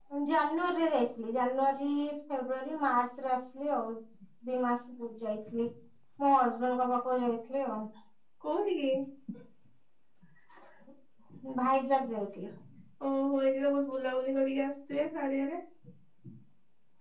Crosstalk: none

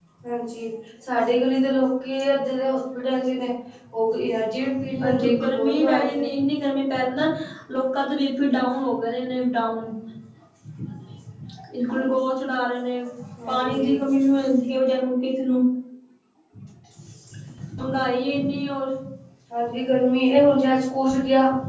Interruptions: present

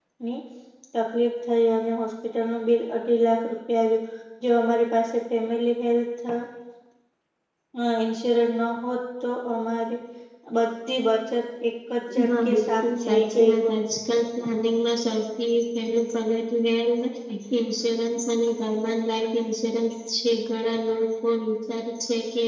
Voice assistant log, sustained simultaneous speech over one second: present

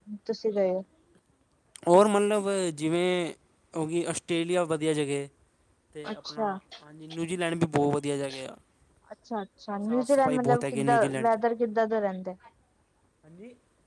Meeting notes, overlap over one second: present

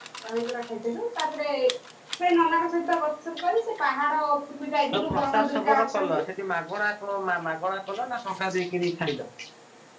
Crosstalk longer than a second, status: present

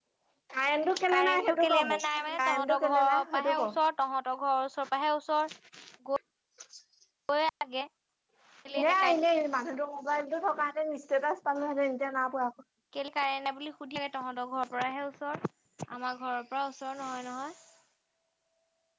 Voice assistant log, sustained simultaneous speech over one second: present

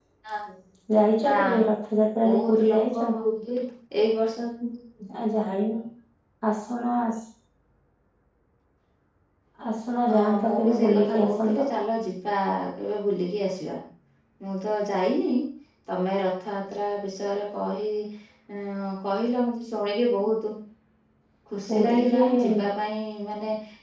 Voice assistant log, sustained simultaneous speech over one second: present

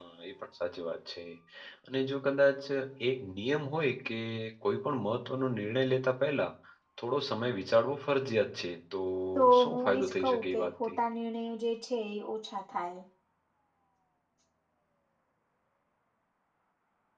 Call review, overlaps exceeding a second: present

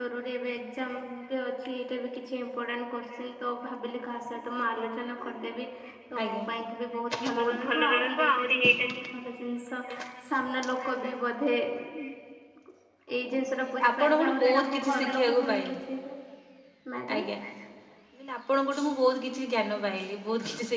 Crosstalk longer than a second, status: present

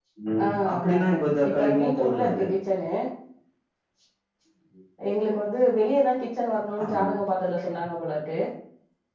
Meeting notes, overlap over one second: present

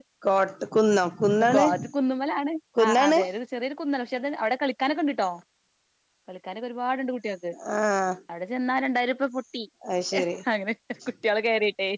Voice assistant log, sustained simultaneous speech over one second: none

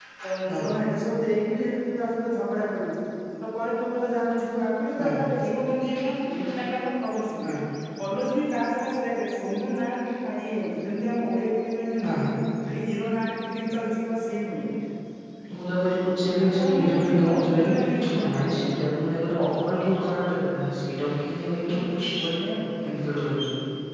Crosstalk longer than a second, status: present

